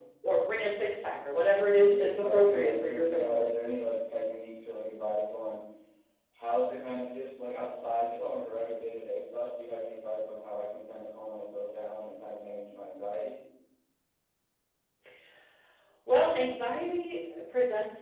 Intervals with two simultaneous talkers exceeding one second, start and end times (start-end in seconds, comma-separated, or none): 1.9-3.5